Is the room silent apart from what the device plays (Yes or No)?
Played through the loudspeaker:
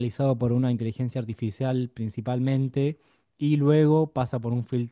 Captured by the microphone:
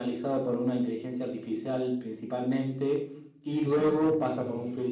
No